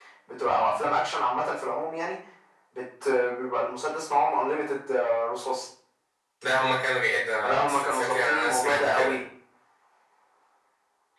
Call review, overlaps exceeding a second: present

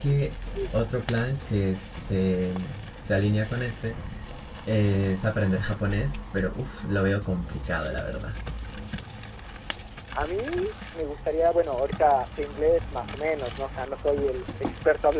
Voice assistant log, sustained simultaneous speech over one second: none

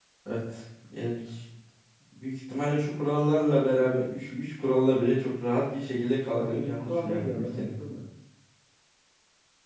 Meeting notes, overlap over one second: present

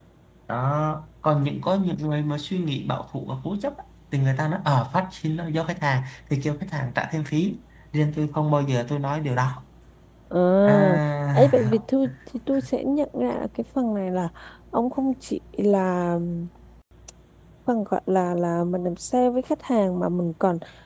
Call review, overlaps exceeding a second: none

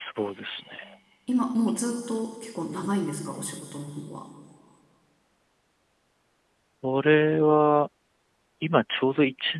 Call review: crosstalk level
none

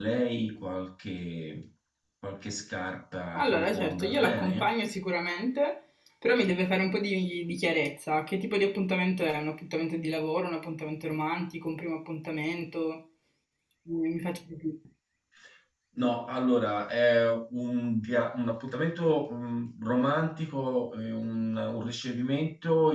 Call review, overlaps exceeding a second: present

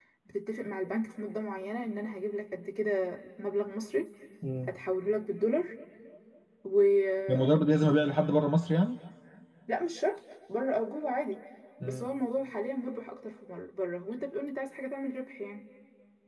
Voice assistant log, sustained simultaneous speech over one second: none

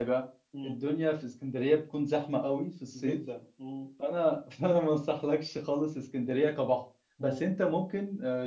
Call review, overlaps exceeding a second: none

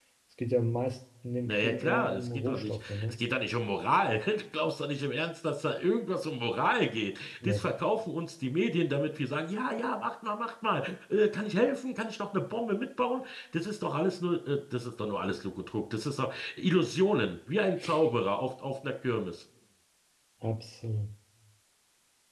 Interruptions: present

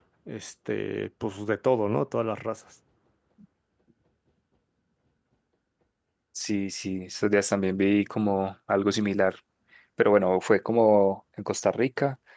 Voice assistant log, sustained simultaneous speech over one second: none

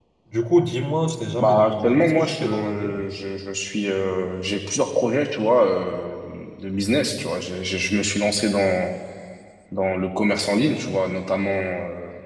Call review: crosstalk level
present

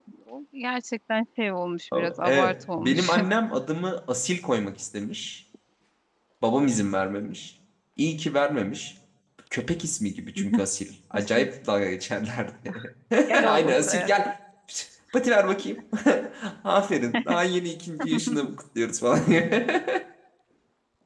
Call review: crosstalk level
present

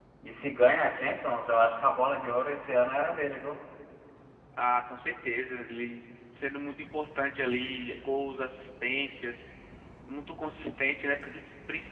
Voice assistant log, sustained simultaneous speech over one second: none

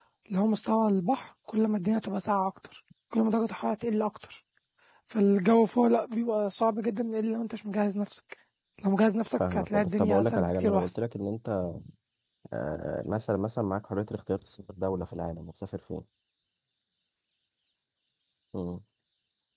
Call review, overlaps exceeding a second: present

